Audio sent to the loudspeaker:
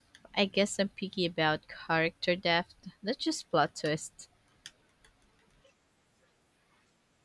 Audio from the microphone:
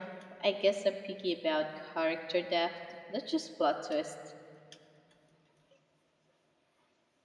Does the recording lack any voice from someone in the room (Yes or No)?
Yes